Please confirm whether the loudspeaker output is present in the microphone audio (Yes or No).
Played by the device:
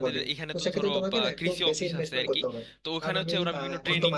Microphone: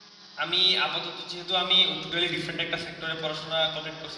No